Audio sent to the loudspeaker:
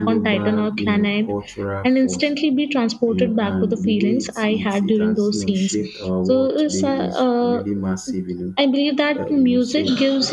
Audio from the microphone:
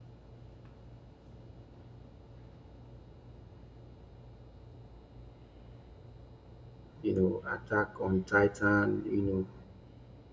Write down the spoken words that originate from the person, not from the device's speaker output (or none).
you know Attack on Titan, you know